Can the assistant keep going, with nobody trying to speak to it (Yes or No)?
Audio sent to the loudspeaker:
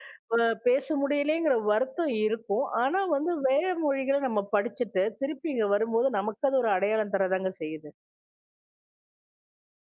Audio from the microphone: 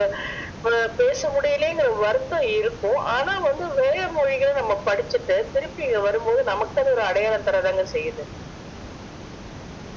Yes